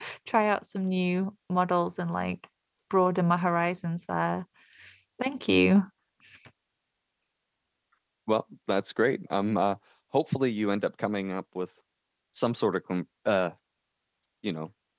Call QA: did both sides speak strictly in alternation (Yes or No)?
Yes